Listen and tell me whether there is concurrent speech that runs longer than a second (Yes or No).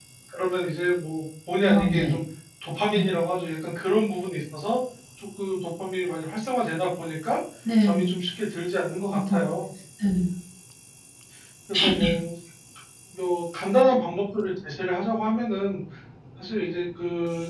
No